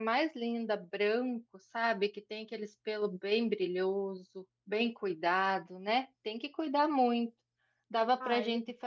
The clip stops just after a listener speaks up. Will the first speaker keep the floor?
Yes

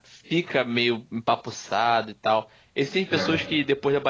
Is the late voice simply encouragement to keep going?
Yes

